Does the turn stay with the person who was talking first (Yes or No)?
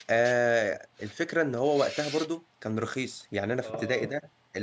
Yes